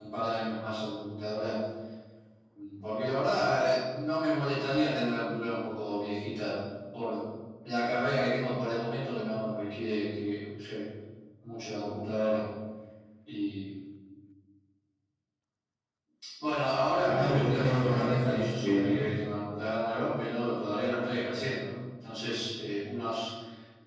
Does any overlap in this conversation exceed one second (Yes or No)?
Yes